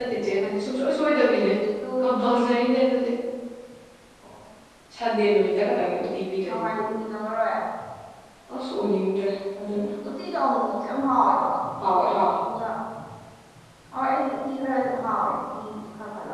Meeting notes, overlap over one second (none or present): none